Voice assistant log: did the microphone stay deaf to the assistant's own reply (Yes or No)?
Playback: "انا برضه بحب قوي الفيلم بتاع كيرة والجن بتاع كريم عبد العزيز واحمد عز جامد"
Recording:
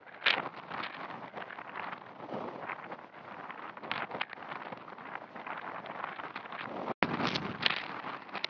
Yes